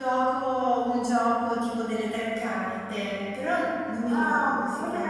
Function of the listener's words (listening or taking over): taking over